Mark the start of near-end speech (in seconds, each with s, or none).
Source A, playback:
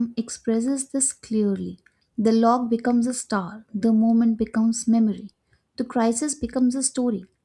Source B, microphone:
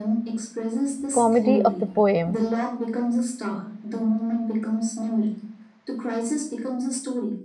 1.1 s